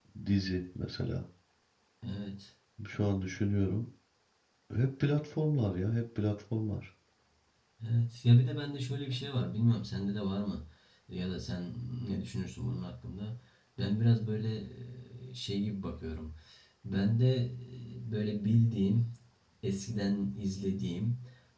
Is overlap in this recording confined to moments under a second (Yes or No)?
Yes